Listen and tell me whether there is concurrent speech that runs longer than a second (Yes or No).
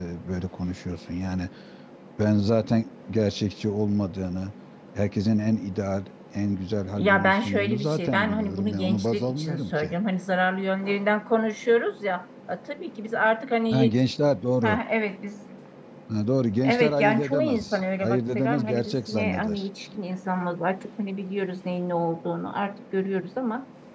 Yes